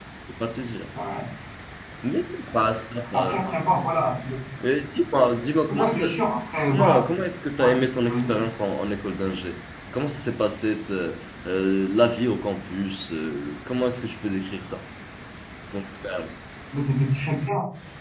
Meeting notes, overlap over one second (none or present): none